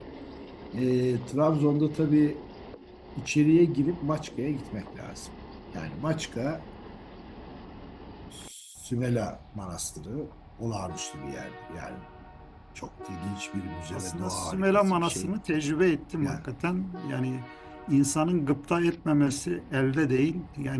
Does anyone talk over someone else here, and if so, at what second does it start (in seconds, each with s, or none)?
13.9 s